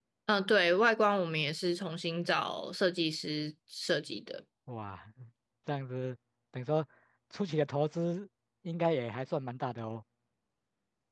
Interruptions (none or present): none